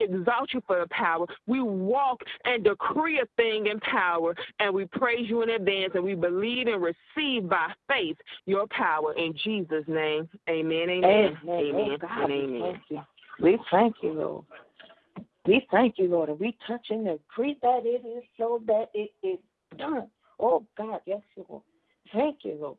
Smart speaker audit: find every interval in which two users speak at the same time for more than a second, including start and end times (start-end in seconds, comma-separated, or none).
11.0-12.7